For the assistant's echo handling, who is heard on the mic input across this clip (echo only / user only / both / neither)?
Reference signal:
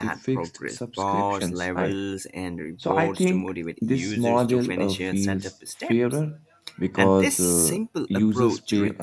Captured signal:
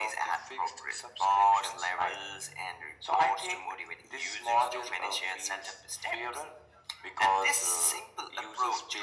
echo only